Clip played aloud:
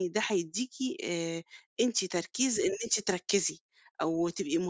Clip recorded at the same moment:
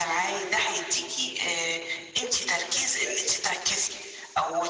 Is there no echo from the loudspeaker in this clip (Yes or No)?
No